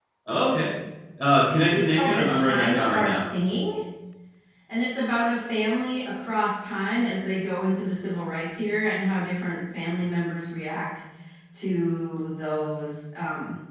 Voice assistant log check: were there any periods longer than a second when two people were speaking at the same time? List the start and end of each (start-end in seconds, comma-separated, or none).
1.7-3.2